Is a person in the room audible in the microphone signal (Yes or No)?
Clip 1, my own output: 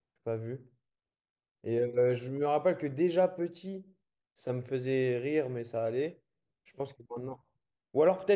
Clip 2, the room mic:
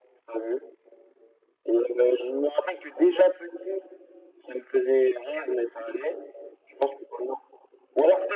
No